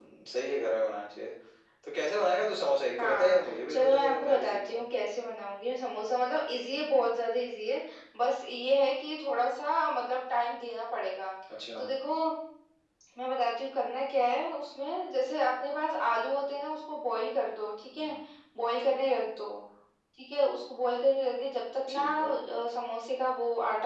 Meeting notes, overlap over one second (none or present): present